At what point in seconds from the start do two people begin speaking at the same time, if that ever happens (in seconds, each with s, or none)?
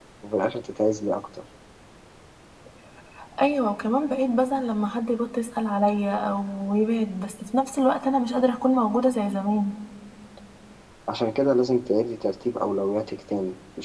none